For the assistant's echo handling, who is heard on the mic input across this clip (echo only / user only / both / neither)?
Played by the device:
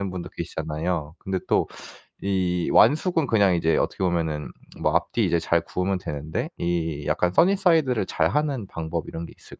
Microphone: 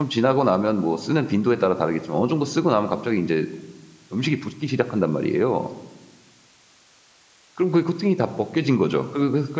user only